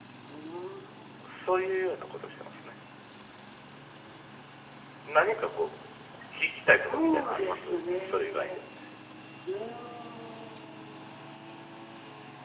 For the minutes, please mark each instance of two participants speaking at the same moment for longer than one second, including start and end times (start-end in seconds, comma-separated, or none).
6.8-8.6